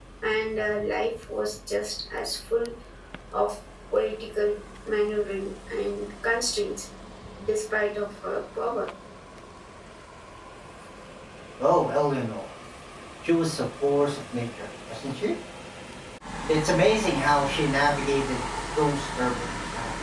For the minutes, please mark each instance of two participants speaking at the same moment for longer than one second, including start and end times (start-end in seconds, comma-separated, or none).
none